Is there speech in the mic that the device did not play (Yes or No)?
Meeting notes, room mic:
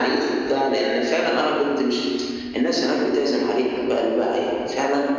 No